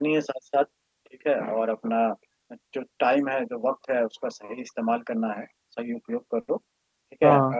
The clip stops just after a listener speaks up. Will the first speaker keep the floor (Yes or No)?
Yes